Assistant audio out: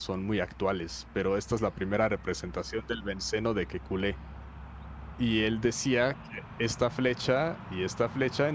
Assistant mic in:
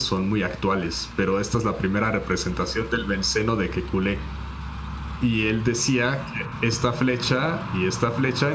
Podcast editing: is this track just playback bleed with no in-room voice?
Yes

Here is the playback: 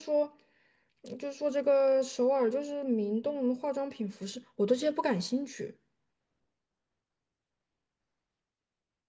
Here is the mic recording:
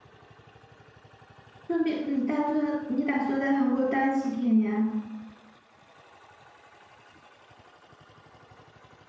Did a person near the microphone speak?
Yes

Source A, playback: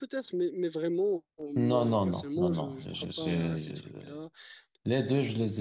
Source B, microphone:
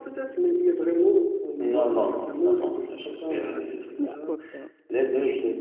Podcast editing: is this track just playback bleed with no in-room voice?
No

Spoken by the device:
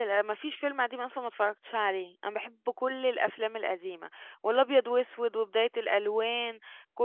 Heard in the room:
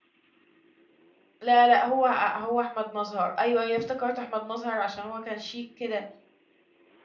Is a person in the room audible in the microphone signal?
Yes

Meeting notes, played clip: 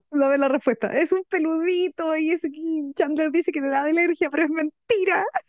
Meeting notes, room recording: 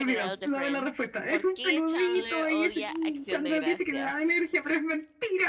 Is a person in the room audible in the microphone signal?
Yes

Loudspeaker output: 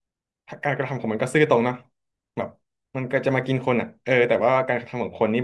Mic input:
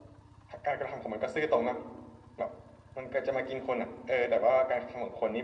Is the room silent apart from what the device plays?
Yes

